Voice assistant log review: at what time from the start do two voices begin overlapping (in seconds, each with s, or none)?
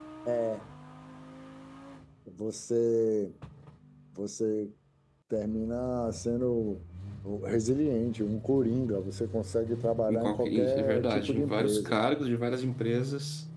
10.1 s